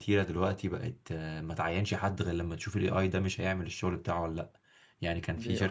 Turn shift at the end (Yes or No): No